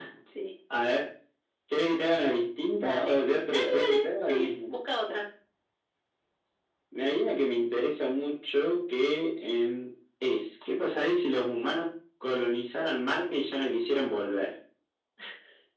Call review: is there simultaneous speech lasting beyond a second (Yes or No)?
Yes